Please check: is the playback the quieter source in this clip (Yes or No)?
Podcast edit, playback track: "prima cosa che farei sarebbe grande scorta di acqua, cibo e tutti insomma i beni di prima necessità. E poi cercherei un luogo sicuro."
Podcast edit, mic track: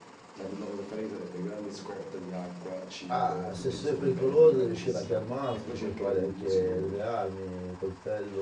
Yes